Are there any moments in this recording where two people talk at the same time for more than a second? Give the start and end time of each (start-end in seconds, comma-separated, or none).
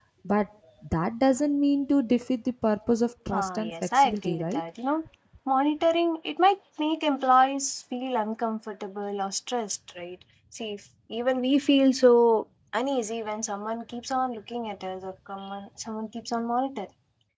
3.3-4.6